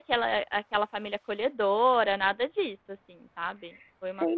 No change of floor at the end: No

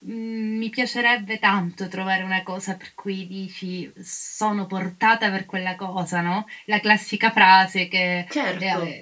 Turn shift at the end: No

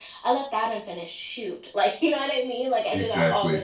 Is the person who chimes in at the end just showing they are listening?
Yes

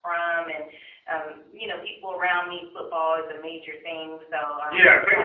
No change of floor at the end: No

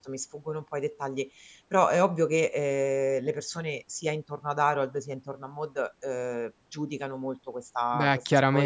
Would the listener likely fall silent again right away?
No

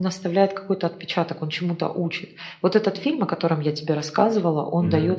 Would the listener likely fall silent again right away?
Yes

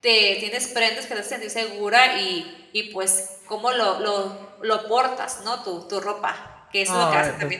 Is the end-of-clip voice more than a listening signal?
Yes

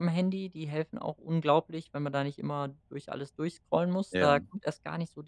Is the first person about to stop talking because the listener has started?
No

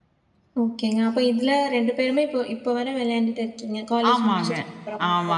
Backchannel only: No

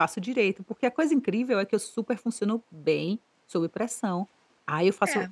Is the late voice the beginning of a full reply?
No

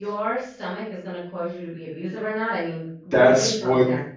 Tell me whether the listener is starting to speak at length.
Yes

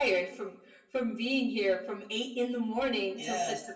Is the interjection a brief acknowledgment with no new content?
Yes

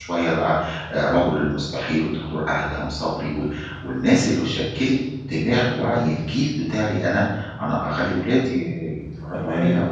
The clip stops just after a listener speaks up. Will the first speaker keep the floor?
No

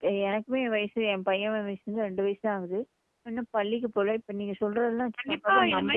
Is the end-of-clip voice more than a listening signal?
Yes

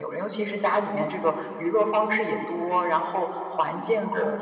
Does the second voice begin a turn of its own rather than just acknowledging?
No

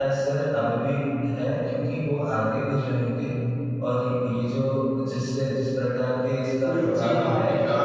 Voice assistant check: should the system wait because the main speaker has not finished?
No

